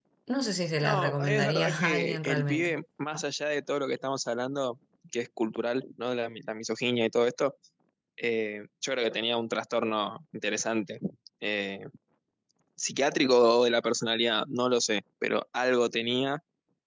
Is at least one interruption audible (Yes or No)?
Yes